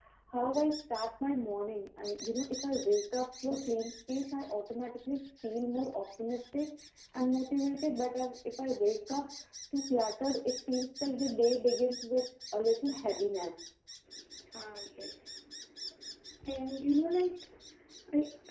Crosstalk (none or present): none